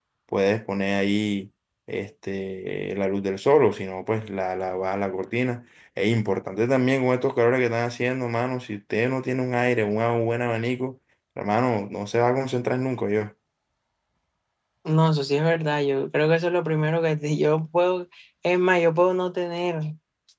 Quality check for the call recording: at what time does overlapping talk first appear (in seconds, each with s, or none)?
none